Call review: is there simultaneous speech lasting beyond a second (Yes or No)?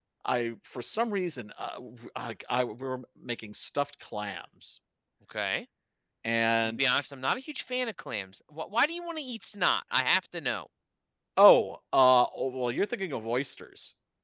No